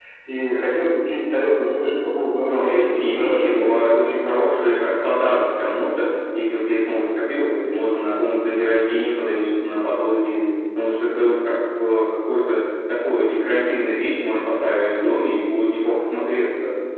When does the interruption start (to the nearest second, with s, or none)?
2 s